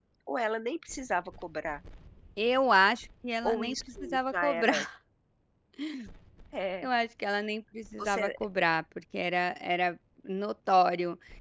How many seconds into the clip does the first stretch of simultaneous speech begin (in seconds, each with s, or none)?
3.4 s